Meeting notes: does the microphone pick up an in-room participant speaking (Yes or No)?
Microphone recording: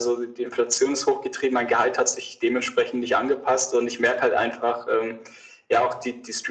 No